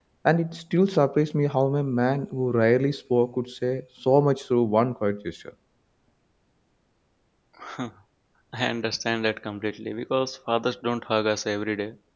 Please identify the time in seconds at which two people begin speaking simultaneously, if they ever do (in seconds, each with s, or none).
none